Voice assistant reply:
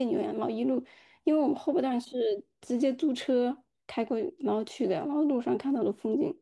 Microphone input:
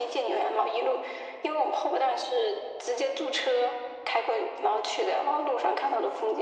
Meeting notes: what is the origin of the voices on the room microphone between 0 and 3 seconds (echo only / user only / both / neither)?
echo only